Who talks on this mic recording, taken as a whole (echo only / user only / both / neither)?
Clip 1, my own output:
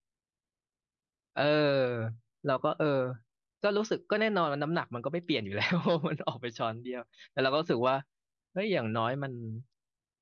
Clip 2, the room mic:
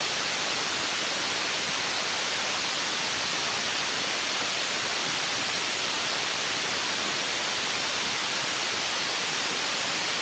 neither